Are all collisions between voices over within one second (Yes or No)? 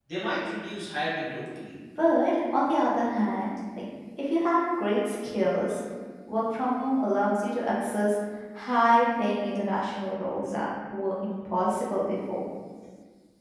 Yes